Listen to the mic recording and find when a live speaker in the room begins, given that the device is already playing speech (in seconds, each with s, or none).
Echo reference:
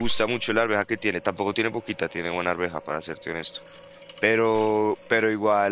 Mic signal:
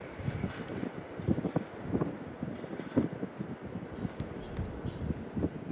none